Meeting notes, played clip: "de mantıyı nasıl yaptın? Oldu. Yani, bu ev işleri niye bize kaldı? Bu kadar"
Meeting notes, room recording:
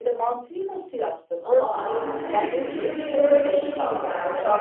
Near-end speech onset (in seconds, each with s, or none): 1.4 s